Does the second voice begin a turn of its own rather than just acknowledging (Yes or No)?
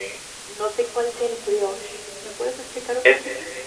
Yes